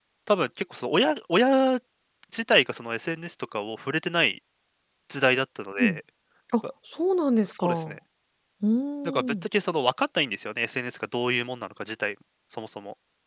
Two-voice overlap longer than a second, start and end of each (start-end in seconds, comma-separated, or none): none